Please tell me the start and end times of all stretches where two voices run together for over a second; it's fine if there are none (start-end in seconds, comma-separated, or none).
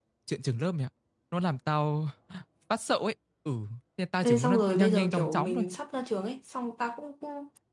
4.2-5.7